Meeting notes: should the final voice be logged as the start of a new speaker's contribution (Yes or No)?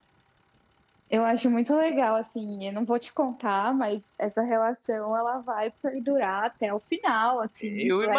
Yes